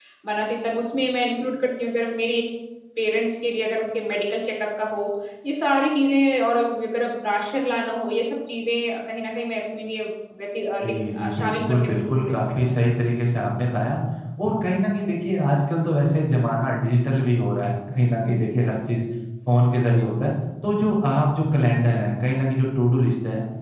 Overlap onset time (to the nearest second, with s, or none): 11 s